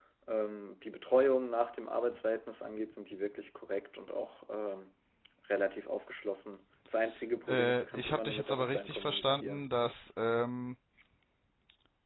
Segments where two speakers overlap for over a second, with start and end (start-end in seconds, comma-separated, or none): 7.5-9.6